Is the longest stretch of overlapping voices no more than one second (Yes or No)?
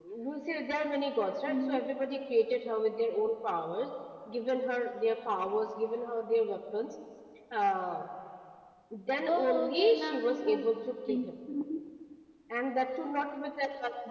No